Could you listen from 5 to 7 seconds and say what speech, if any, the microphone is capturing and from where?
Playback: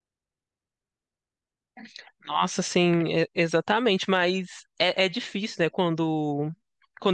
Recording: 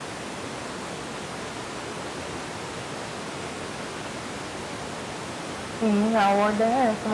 user only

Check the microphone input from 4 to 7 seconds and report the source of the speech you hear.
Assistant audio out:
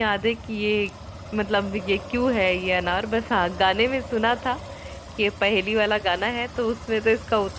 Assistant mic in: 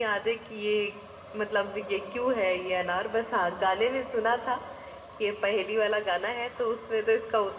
echo only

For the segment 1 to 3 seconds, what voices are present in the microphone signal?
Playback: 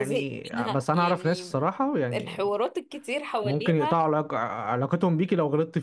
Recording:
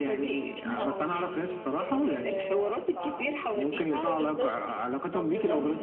both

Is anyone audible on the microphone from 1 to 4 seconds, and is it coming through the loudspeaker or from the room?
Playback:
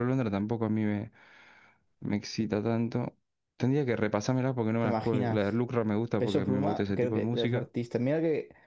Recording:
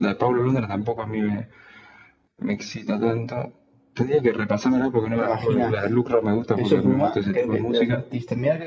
echo only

